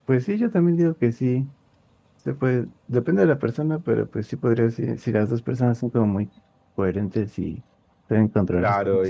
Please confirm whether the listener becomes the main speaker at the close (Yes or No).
Yes